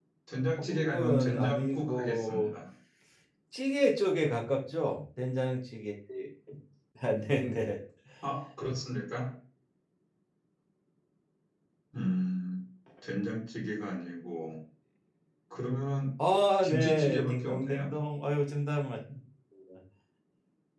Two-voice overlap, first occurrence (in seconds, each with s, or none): 0.6 s